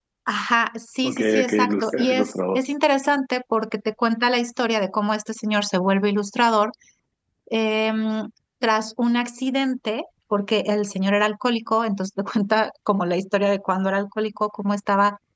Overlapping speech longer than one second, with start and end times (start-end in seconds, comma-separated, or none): 1.1-2.6